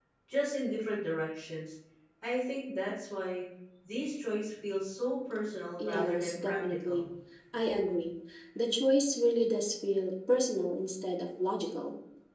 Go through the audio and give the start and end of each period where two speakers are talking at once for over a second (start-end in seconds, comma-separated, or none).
5.8-7.1